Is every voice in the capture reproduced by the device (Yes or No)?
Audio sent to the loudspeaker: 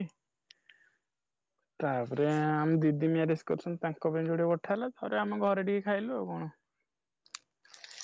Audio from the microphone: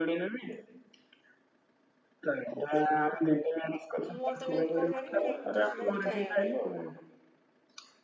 No